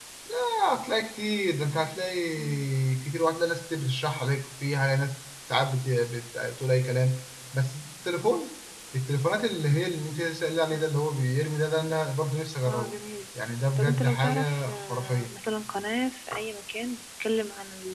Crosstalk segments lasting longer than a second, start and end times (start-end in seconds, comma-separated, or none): 13.8-15.3